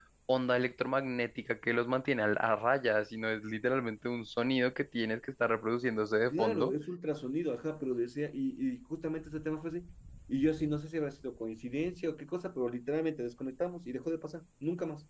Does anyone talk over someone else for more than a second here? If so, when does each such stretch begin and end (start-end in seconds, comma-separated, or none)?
none